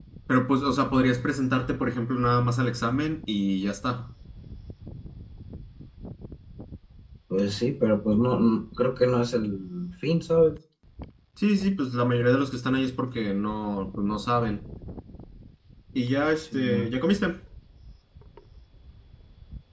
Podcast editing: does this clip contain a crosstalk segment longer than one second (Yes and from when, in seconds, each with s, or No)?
No